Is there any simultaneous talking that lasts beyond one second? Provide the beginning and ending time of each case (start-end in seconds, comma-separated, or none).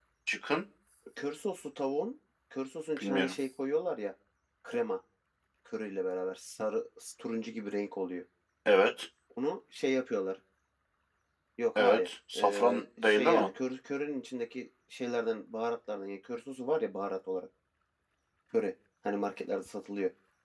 11.8-13.5